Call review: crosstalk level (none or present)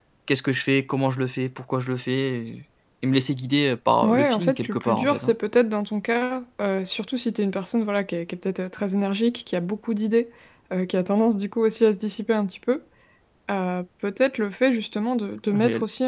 present